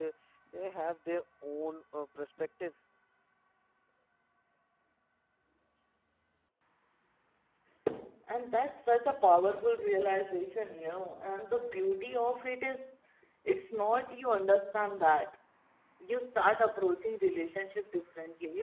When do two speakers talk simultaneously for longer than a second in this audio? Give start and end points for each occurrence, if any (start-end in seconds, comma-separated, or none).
none